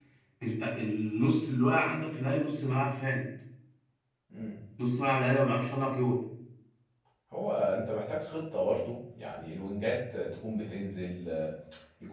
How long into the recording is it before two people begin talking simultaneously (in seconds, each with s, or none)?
none